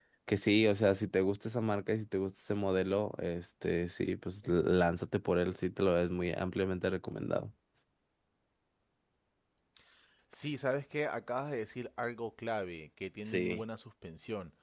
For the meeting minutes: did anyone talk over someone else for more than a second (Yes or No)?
No